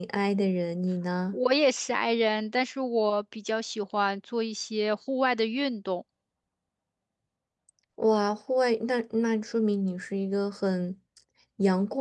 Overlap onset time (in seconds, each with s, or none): none